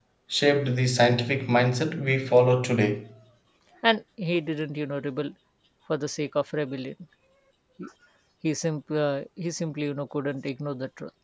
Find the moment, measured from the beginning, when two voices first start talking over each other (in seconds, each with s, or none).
none